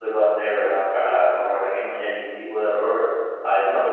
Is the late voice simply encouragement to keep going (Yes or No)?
Yes